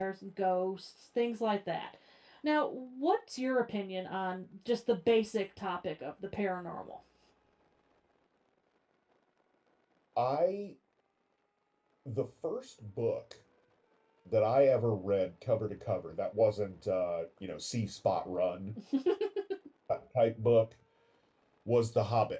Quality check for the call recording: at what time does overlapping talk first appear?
none

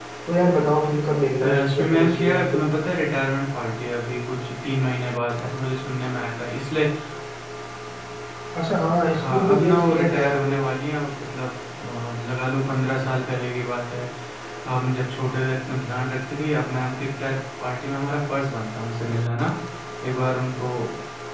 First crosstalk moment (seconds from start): 1.4 s

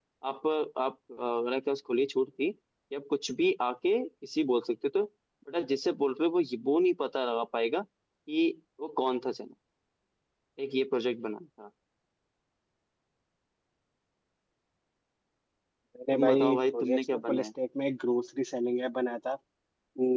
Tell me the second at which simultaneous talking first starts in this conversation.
16.1 s

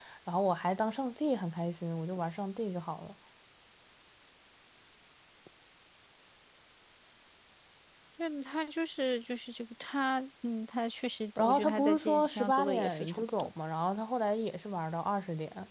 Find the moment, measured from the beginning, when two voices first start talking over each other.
11.4 s

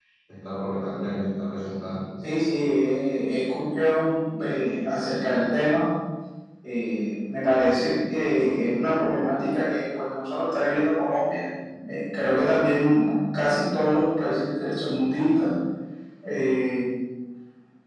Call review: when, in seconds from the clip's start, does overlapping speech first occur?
none

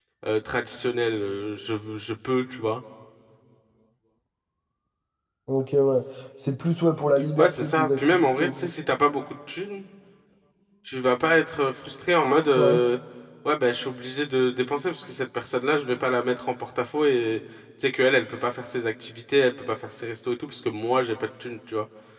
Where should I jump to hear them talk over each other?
7.4 s

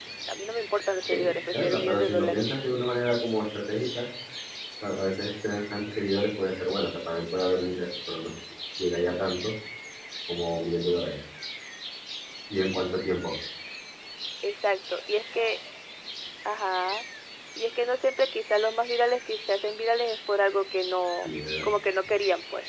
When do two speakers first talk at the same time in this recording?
1.1 s

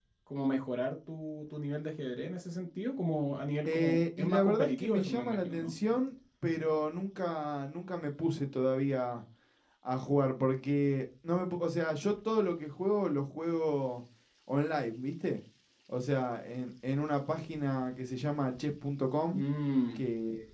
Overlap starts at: 3.6 s

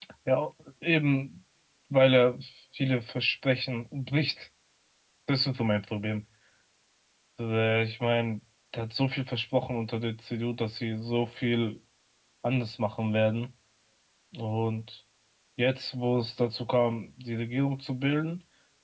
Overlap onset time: none

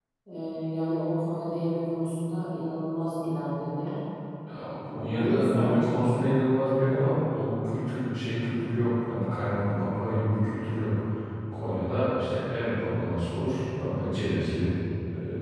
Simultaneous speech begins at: 4.6 s

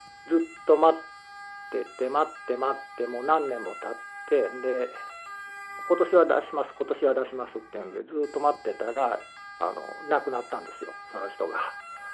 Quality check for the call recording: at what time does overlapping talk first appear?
none

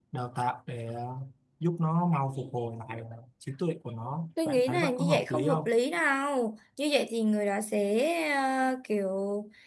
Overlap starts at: 4.4 s

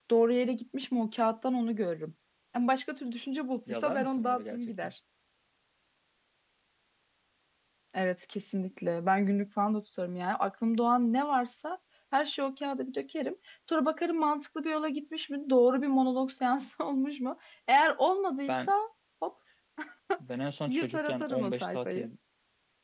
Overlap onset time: 3.7 s

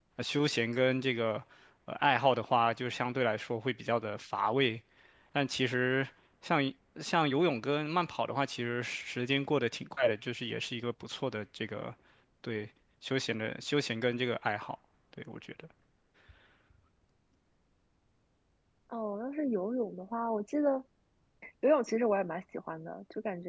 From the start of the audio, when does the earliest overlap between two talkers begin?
none

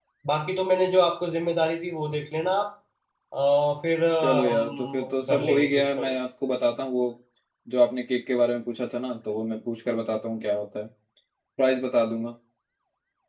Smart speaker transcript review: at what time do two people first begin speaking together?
4.2 s

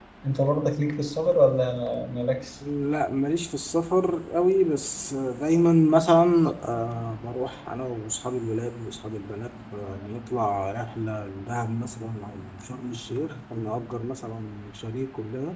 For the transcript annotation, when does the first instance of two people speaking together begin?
none

